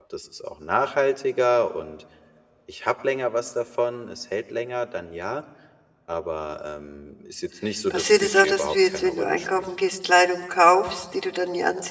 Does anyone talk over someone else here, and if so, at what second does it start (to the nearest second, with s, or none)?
8 s